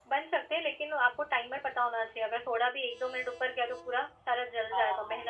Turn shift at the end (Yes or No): Yes